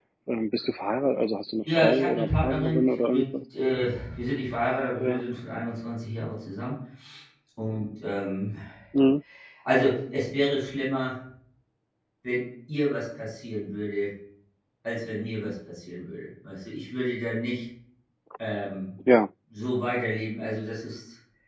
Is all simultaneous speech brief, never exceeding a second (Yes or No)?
No